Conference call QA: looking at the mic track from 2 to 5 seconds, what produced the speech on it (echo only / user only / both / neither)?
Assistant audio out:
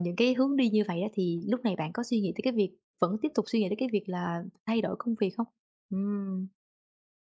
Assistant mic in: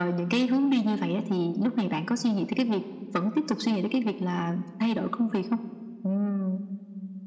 echo only